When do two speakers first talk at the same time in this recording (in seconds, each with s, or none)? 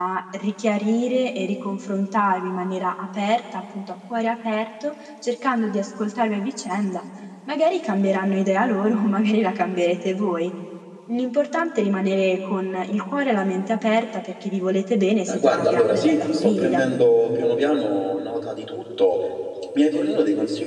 15.3 s